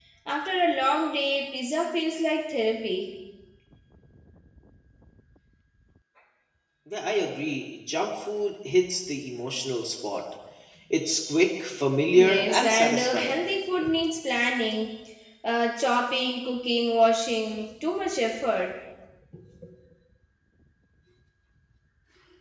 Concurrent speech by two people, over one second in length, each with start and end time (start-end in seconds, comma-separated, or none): 12.1-13.3